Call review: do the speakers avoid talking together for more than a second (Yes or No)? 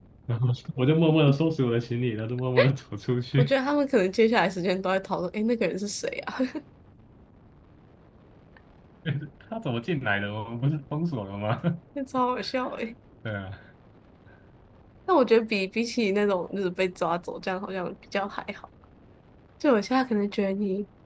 Yes